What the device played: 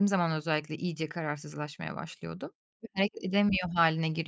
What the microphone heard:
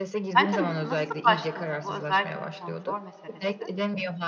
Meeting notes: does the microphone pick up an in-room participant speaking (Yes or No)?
Yes